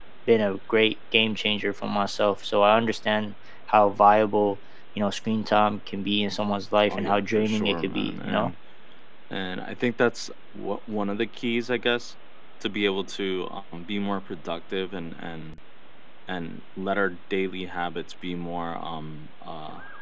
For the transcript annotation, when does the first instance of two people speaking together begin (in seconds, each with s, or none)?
6.9 s